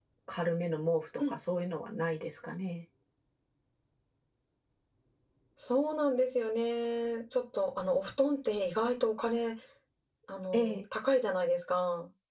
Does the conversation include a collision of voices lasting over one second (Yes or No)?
No